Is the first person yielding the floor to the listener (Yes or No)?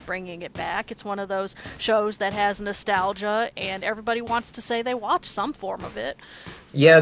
Yes